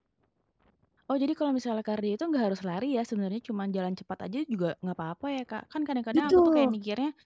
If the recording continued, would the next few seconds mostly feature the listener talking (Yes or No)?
No